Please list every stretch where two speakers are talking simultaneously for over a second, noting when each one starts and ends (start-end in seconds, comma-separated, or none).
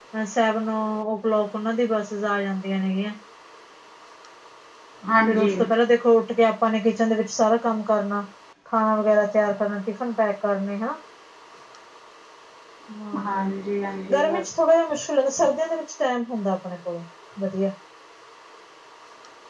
none